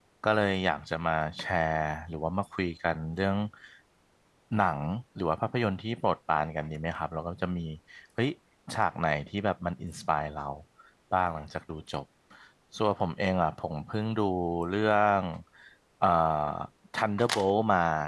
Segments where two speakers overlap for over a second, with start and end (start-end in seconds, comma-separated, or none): none